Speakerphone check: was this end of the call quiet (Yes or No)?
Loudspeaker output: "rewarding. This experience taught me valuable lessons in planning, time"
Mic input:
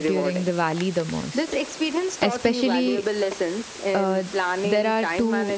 No